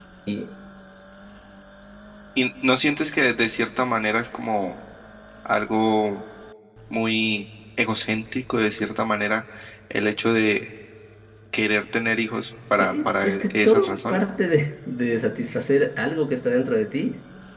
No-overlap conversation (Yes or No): No